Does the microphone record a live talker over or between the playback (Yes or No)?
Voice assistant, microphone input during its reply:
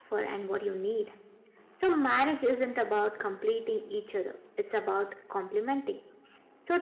Yes